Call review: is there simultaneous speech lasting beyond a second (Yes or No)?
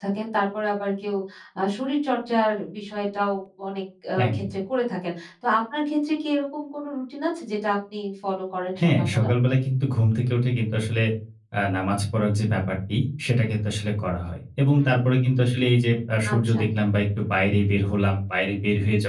No